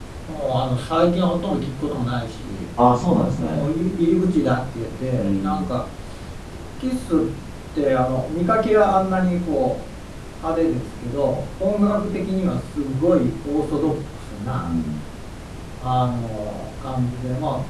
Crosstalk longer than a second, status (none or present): none